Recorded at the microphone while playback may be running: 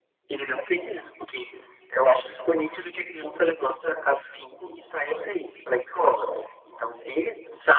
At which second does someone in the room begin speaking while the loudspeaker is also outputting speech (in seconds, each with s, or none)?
none